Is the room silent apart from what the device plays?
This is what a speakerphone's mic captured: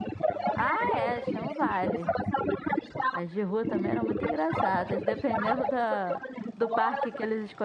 No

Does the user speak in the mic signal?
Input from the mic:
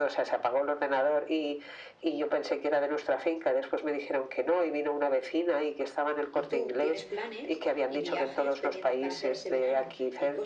Yes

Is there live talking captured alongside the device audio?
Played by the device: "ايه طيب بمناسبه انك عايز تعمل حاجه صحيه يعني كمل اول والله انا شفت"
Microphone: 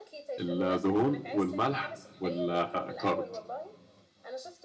Yes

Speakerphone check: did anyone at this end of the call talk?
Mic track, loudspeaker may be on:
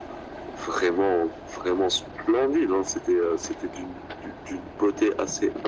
No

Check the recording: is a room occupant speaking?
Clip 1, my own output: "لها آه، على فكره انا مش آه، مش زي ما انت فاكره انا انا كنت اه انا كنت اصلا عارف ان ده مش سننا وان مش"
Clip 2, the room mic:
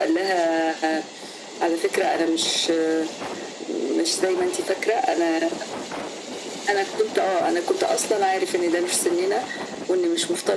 No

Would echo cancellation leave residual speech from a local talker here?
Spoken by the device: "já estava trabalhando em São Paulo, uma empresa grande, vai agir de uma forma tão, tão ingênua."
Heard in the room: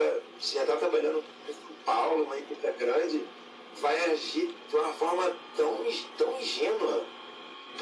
No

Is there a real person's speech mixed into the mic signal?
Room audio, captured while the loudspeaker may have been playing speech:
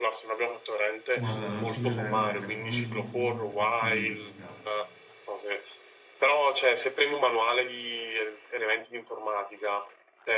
Yes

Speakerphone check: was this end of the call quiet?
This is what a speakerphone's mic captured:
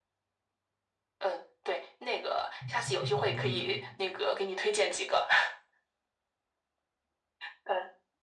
No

